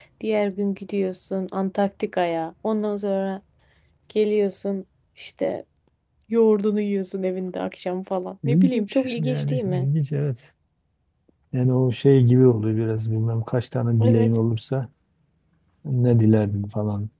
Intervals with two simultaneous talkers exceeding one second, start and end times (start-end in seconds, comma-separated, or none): 8.5-9.9